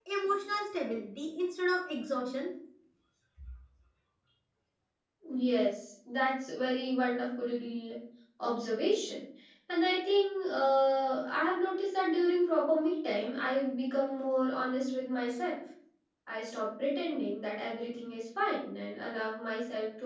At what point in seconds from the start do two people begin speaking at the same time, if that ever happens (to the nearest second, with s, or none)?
none